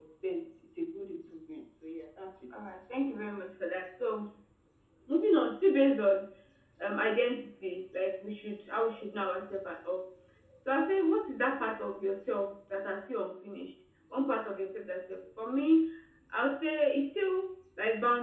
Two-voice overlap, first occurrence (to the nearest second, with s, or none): none